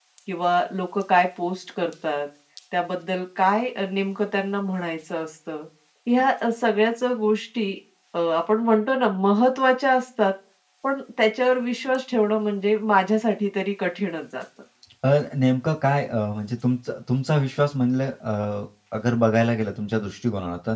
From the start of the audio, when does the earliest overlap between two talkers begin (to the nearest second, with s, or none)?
none